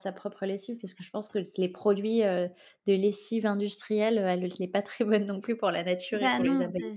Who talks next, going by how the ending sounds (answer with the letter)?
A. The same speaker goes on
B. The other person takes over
B